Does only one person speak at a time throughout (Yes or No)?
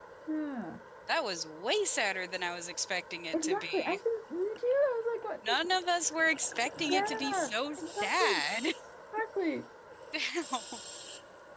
No